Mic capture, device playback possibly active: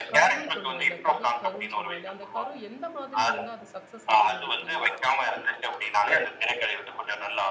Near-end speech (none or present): present